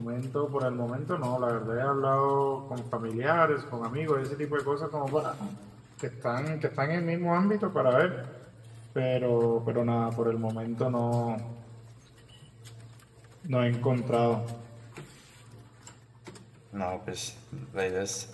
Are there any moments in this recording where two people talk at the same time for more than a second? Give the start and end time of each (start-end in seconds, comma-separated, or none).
none